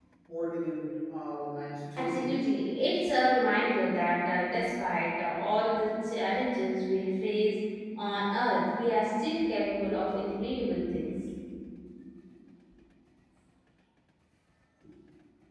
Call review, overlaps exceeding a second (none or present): none